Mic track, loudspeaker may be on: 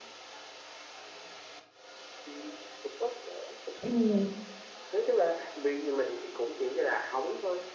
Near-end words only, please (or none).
ừ,